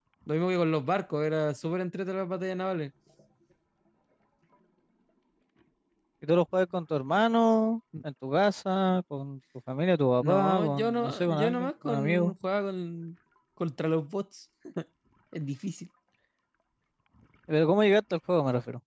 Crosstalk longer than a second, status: present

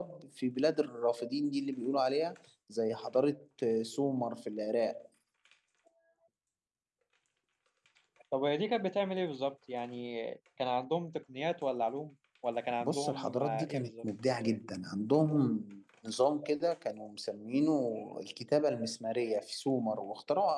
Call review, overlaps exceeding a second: present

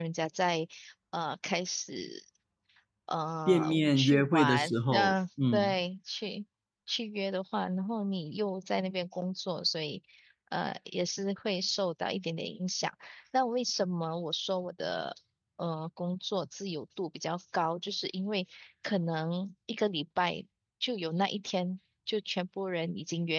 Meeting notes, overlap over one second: present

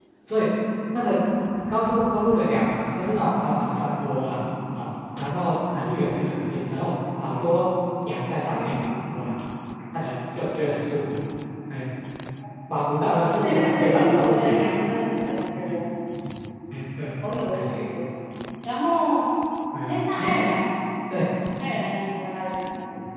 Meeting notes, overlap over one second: present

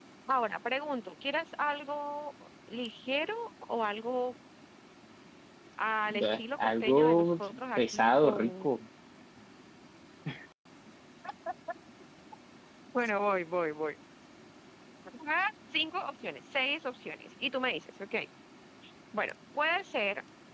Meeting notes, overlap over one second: present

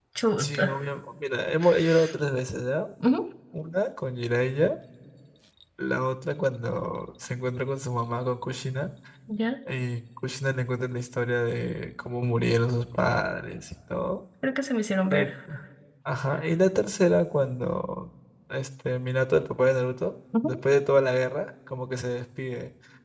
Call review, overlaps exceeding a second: none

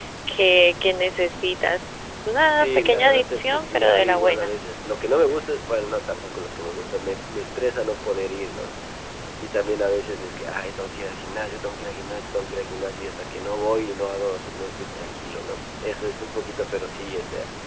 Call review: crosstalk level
present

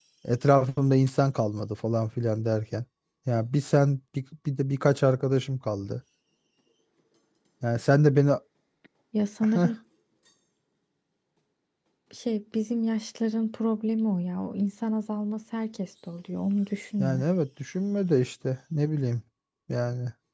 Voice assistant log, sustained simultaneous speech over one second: none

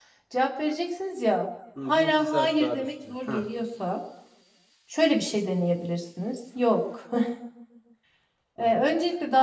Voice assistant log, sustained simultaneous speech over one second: present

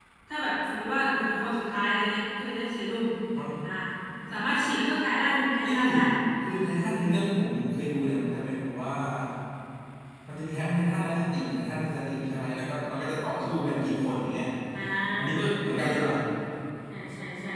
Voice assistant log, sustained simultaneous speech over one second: none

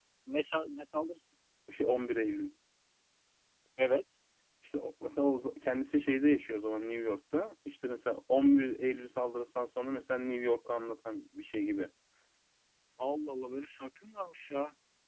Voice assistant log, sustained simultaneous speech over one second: none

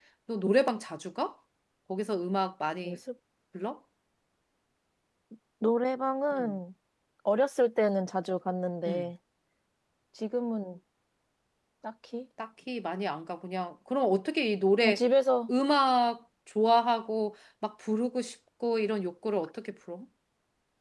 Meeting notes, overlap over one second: none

